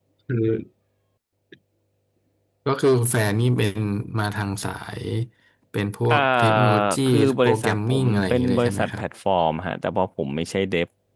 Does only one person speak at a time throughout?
No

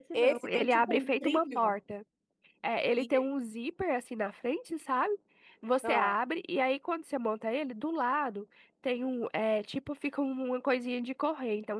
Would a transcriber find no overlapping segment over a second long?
No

